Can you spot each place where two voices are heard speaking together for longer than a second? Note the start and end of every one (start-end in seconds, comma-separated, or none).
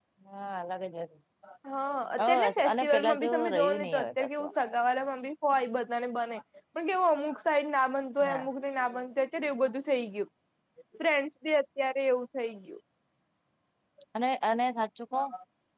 2.2-4.5